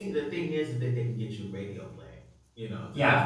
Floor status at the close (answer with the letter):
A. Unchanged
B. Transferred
A